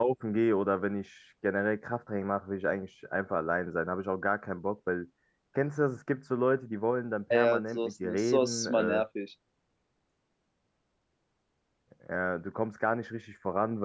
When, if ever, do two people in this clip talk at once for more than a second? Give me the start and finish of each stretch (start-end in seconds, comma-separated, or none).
7.3-9.0